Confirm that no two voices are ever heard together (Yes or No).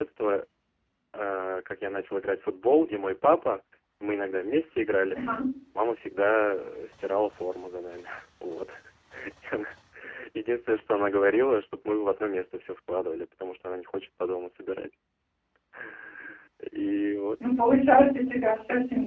Yes